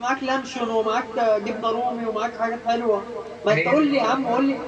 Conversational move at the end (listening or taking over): listening